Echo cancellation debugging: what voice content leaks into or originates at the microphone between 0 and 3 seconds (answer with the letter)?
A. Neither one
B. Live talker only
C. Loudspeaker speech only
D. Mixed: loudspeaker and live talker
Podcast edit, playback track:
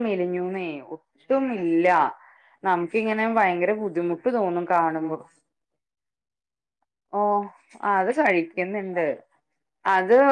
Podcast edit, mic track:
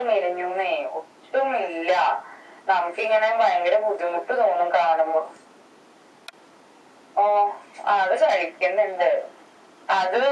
C